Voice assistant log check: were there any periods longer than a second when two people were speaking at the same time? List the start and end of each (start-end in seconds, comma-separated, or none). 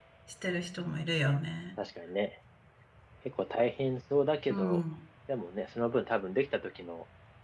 none